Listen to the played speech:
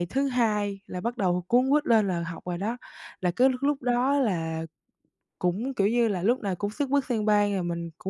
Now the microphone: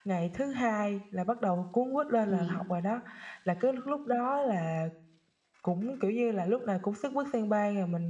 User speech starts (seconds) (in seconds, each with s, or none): 2.2 s